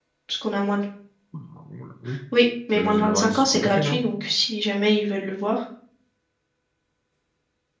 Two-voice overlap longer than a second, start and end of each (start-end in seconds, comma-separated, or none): 2.8-4.0